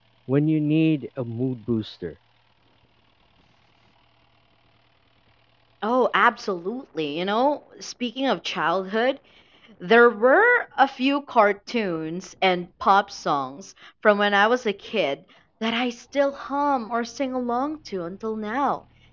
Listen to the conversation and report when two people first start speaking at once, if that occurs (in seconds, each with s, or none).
none